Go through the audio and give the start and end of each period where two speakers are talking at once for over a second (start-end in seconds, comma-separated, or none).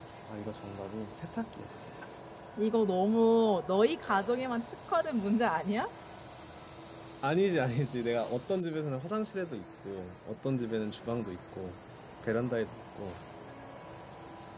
none